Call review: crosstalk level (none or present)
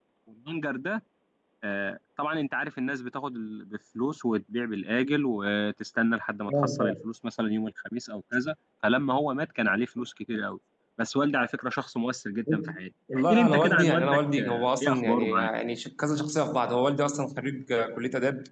present